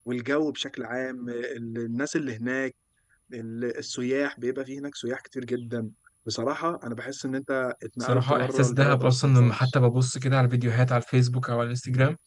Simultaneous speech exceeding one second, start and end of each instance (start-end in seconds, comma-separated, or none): 8.0-9.7